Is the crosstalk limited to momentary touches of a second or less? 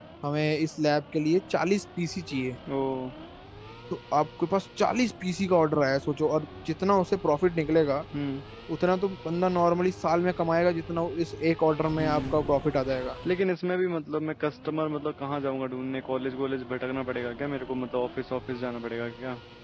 Yes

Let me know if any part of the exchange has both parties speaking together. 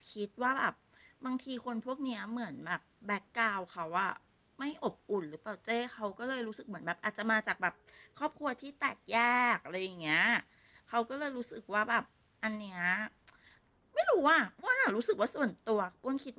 No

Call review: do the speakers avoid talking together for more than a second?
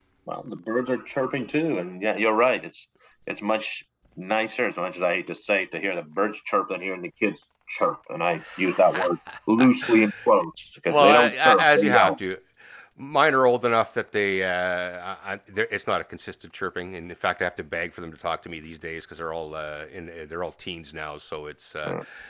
No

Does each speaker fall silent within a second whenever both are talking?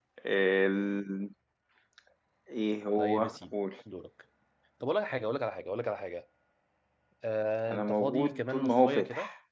No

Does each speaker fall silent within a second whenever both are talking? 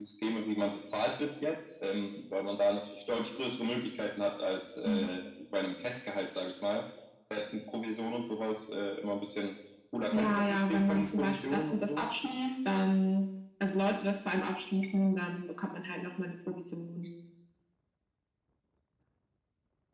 No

